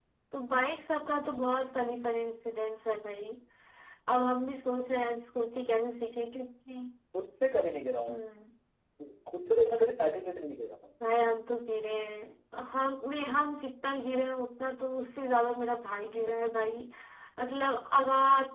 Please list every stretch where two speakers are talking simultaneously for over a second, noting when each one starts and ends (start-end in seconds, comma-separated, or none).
none